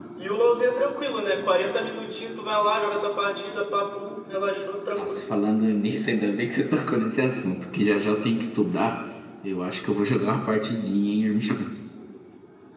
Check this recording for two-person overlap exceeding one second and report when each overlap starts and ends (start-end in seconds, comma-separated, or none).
none